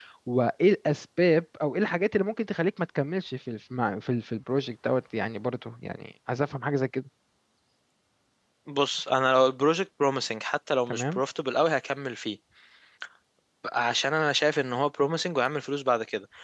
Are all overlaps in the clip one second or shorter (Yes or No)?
Yes